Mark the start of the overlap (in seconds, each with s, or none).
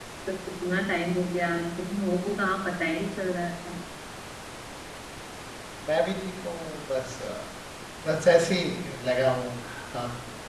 none